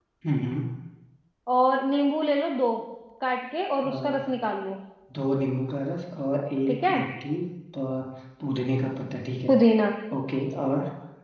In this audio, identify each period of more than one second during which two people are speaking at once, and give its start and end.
none

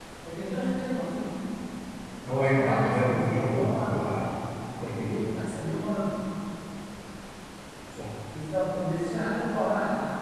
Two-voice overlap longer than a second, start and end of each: 2.3-4.2

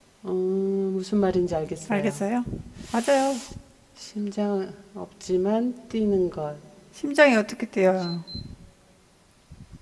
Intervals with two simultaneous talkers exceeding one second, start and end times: none

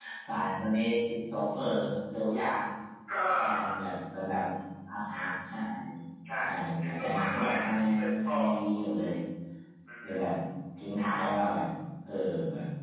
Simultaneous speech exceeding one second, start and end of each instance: 6.8-8.4

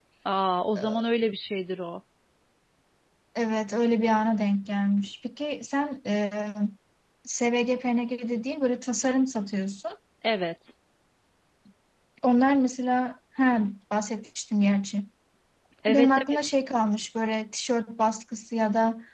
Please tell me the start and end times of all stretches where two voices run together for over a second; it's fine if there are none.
none

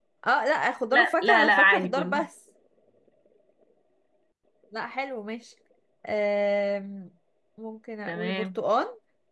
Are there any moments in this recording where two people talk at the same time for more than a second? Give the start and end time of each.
0.9-2.2

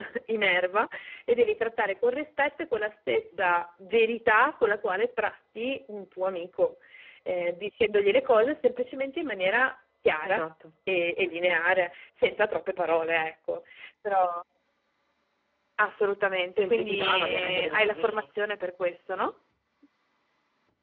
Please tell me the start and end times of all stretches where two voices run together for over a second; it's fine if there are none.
16.6-18.2

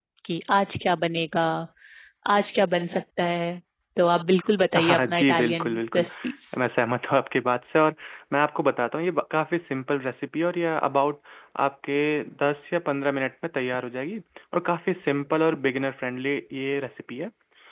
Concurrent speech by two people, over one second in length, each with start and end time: 4.8-6.1

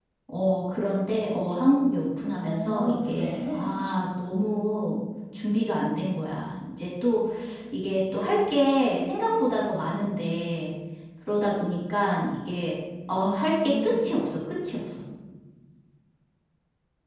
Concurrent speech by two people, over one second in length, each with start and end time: 2.4-3.8

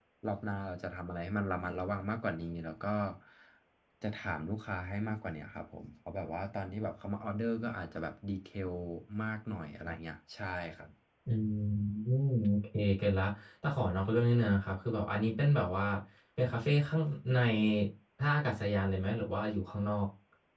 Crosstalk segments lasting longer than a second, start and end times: none

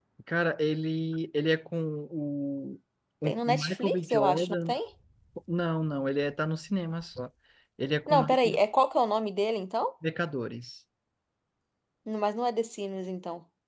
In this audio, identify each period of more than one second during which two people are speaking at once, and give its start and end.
3.3-4.8

